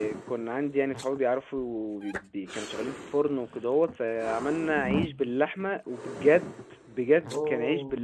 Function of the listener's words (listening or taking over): listening